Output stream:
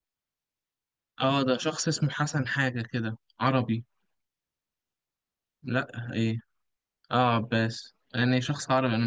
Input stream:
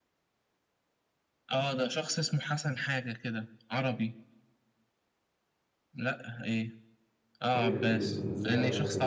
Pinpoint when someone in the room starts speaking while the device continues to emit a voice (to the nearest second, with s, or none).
7 s